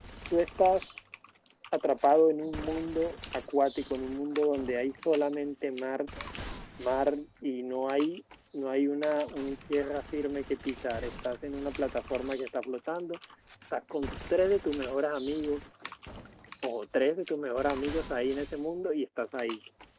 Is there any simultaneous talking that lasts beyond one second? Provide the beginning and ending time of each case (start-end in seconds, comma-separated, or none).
none